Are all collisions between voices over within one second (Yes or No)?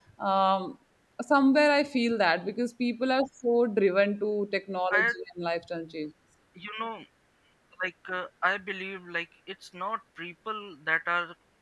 Yes